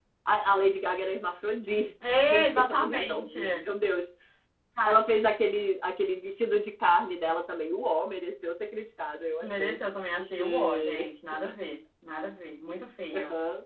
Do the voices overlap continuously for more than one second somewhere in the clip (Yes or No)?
Yes